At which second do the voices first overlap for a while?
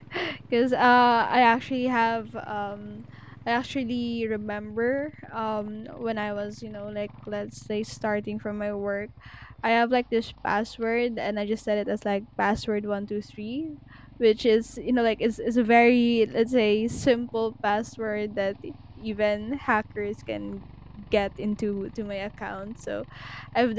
none

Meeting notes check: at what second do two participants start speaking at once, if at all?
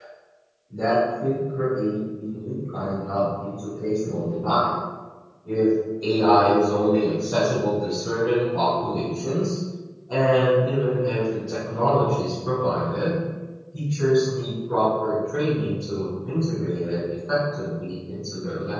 none

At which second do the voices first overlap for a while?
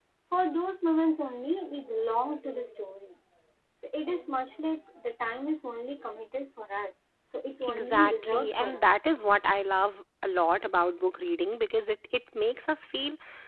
8 s

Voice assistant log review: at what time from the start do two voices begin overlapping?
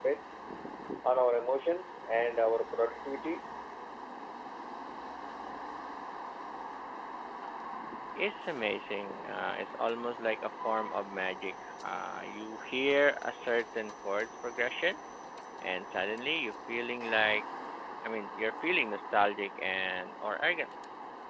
none

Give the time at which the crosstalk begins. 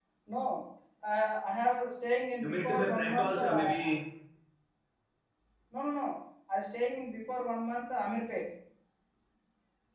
2 s

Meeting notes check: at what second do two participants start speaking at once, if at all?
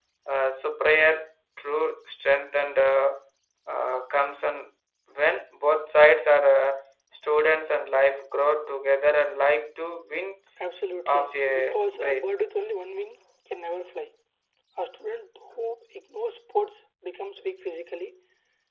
11 s

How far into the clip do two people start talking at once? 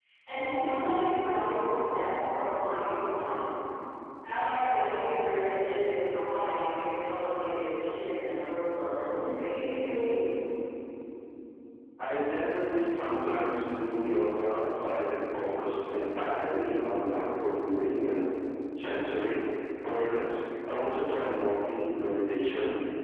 none

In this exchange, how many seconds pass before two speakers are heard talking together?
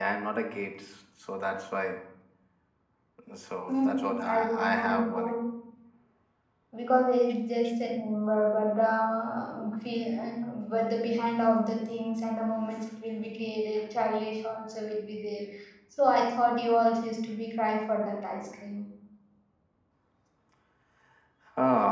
4 s

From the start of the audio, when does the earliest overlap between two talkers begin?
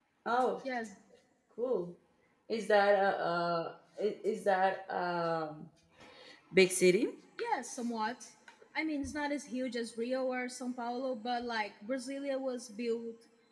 none

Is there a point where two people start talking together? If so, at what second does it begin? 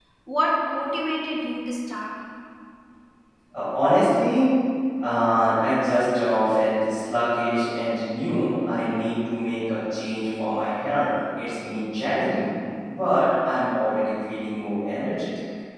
none

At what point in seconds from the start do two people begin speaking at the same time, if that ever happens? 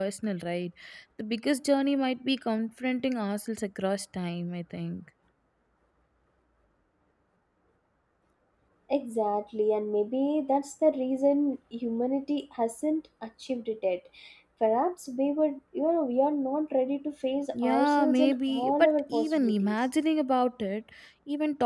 18 s

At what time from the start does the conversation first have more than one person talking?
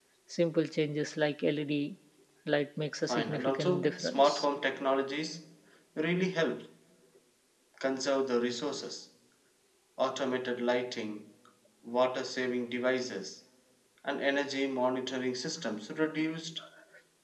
3 s

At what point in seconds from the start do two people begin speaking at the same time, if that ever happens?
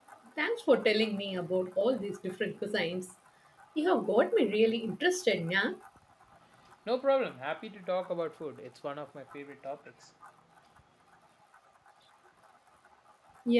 none

